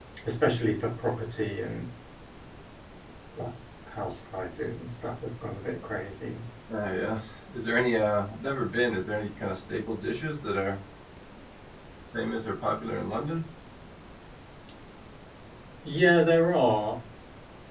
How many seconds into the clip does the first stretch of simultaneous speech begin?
none

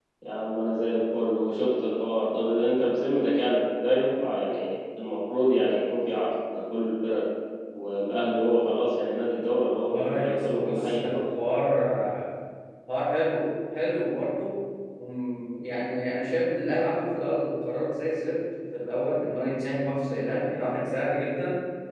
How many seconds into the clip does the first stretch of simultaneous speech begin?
10 s

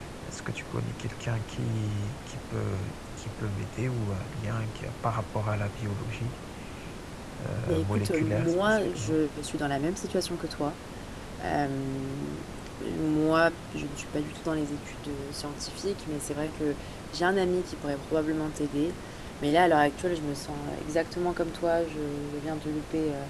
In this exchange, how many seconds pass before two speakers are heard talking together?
8 s

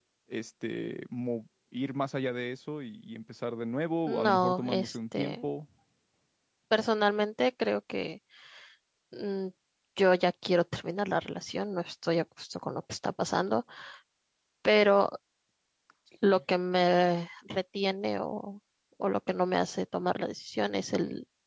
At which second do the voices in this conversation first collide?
4 s

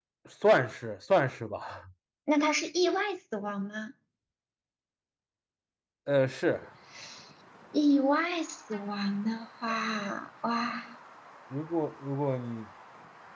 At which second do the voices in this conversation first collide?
none

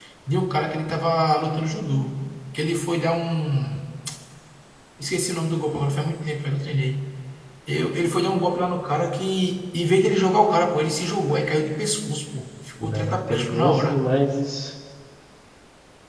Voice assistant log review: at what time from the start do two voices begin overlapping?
13 s

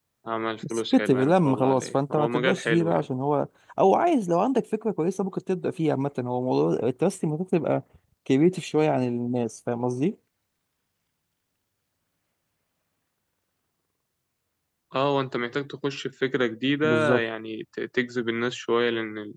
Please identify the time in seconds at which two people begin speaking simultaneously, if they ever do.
1 s

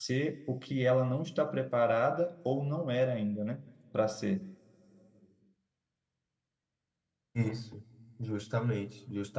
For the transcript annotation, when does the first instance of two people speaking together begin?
none

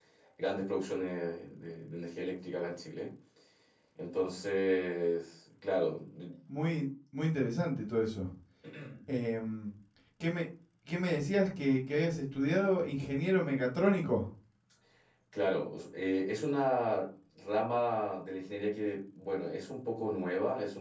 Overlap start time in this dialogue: none

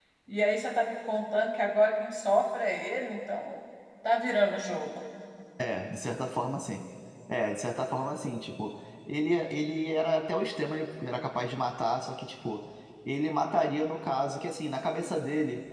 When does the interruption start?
none

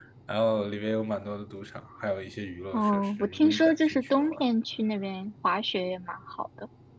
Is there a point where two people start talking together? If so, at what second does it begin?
3 s

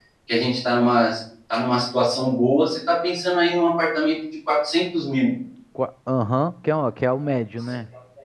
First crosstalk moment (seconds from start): none

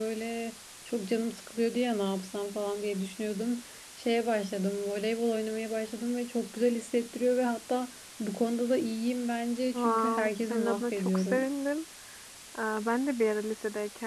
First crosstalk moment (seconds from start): 10 s

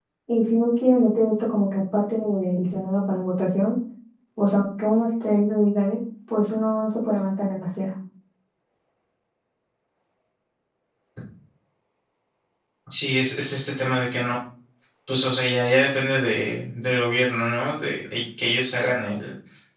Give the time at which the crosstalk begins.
none

